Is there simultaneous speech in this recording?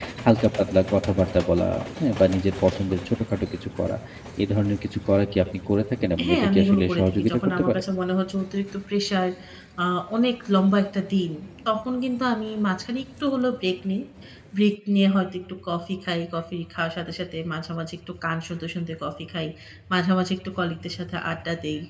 Yes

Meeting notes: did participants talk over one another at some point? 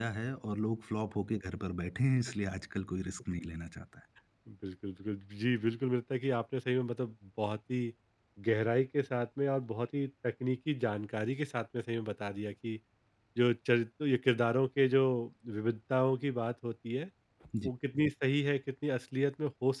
No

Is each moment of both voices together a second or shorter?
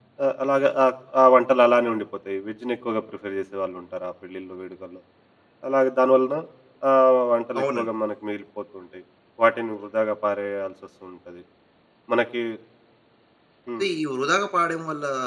Yes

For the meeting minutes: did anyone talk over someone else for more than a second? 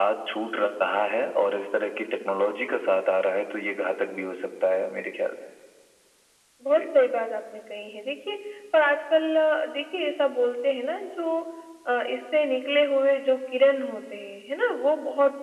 No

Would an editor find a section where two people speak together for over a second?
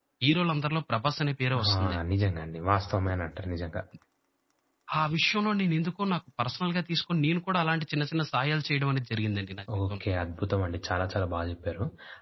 No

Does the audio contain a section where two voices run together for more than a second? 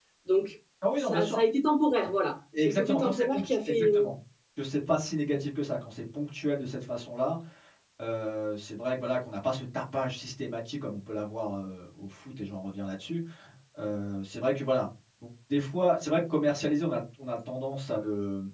Yes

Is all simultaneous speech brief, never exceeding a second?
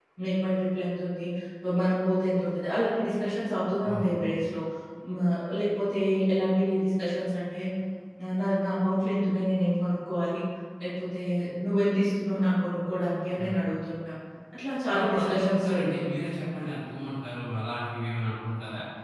No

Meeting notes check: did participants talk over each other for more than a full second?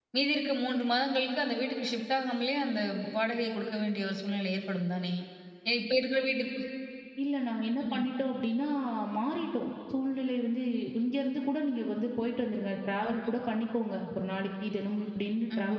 No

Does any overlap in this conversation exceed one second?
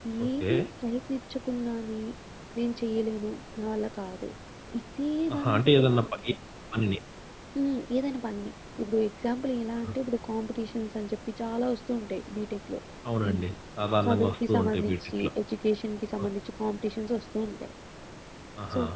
Yes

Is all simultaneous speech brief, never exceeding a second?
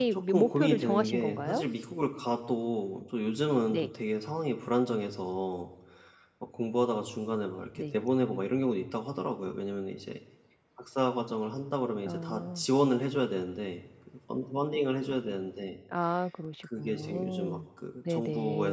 No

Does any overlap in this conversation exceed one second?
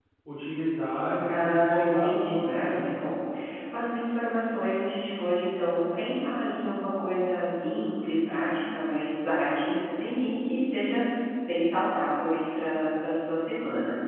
Yes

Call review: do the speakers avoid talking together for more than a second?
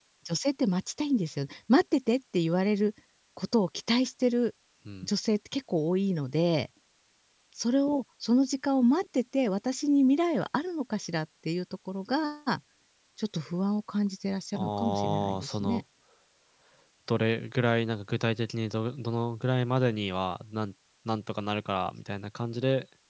No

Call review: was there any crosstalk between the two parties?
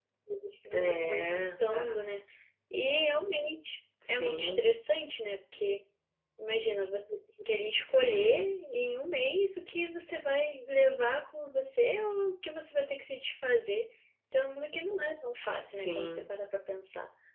Yes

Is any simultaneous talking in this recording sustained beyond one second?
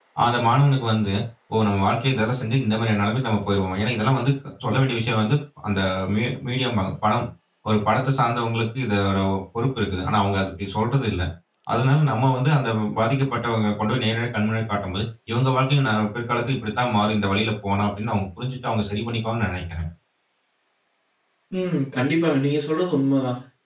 No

